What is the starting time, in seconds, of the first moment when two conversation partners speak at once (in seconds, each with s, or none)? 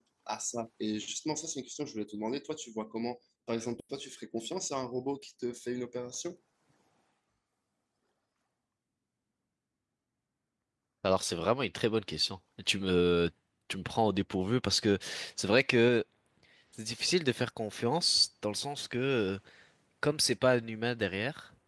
none